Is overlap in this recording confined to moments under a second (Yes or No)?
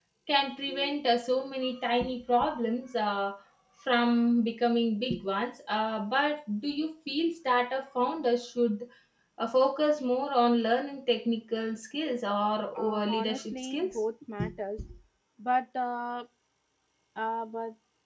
No